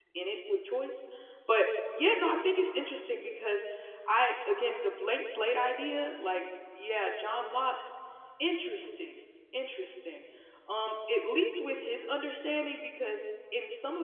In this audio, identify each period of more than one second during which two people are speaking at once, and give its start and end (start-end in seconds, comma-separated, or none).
none